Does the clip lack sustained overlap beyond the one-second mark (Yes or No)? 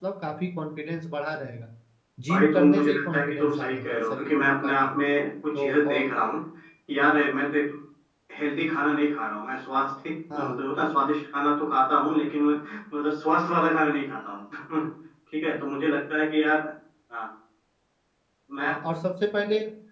No